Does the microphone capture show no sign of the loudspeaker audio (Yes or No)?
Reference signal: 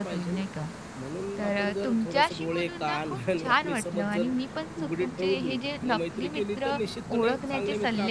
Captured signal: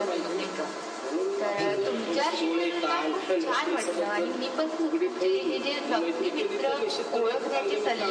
No